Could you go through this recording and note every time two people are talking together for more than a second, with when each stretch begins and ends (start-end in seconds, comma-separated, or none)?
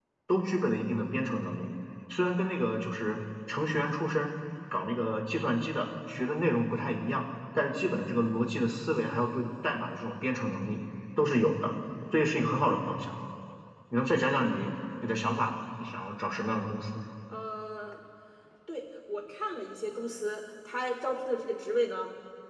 none